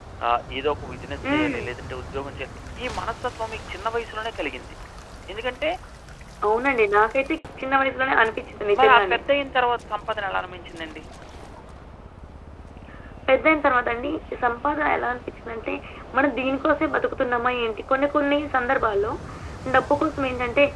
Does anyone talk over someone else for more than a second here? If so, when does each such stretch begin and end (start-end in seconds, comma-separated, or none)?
none